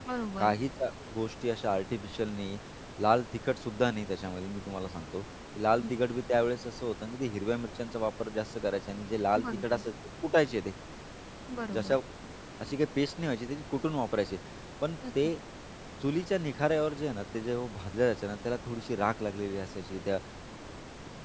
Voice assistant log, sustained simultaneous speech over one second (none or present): none